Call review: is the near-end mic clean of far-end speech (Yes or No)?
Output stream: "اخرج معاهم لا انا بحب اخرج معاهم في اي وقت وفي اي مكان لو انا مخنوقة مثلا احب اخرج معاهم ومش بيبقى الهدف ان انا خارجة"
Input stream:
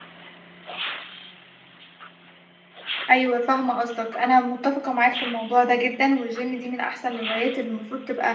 Yes